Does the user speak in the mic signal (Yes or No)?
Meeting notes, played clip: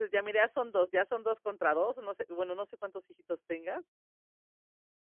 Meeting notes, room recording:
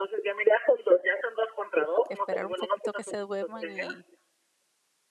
Yes